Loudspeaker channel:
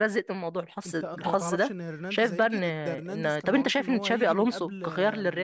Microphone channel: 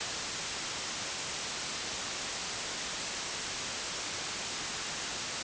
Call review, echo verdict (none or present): none